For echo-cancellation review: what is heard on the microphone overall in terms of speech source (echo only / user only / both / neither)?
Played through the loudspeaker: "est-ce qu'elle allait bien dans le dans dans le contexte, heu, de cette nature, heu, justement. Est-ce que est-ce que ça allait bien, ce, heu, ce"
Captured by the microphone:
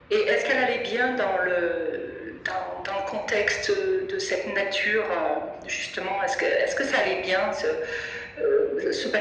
echo only